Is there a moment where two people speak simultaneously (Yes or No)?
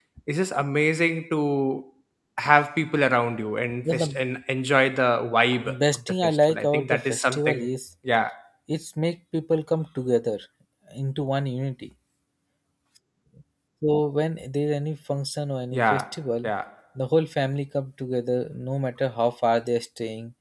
Yes